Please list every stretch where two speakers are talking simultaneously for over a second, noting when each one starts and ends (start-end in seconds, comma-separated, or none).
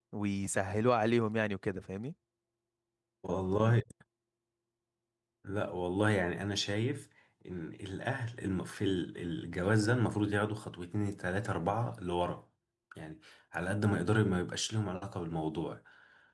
none